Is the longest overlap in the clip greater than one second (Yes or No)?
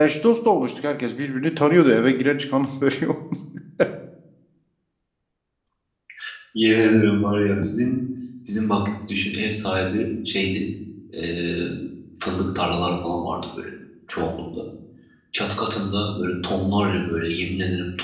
No